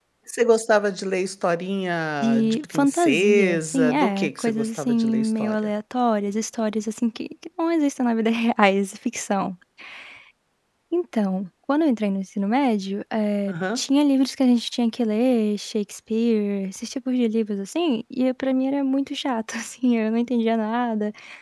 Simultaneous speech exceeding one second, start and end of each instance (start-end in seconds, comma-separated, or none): 2.2-5.5